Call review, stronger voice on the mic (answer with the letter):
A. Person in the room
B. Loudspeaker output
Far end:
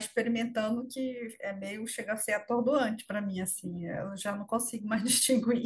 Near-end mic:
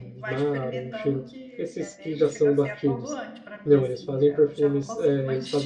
A